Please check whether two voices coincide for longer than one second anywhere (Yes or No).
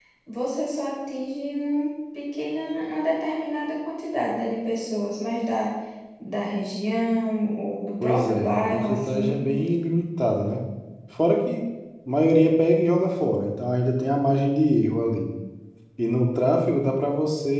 Yes